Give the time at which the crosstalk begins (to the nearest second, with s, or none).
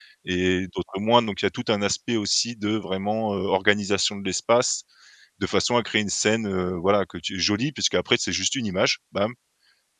none